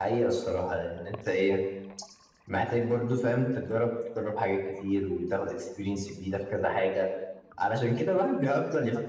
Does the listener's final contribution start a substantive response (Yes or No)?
No